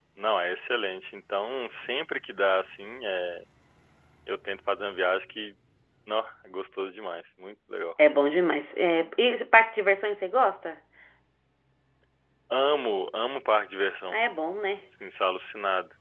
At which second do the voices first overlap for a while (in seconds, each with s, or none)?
none